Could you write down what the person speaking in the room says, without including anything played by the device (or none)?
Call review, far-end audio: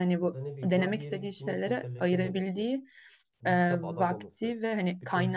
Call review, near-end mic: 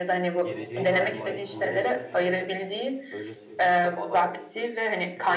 geleceğin sermayesinden yiyoruz şu an. Öyle söyleyeyim.